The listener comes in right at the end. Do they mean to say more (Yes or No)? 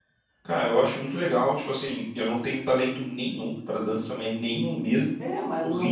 Yes